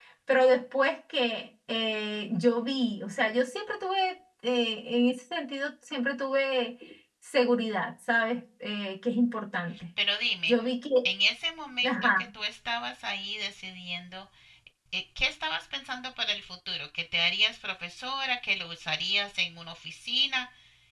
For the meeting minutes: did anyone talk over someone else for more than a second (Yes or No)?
No